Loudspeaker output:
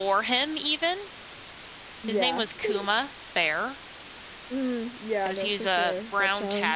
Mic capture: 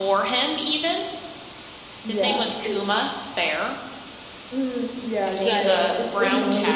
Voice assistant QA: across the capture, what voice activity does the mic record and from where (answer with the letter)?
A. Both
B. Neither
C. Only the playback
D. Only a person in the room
A